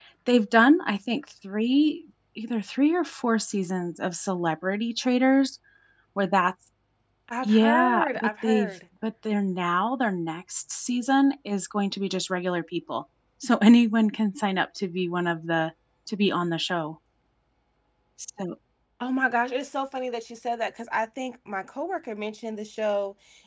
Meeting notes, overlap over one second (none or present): present